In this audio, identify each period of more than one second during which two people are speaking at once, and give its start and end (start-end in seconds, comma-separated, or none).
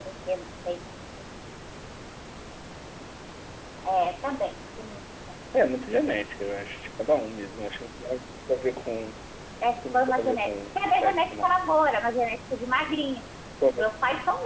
9.8-11.5